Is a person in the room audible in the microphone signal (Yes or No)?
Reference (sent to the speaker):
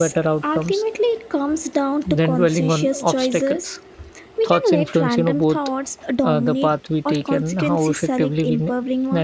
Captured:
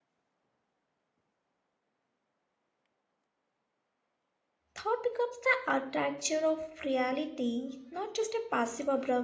Yes